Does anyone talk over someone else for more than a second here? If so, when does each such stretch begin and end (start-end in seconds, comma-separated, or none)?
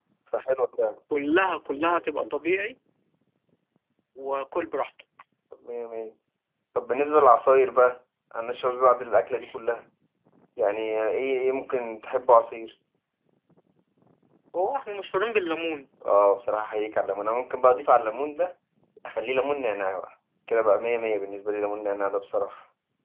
none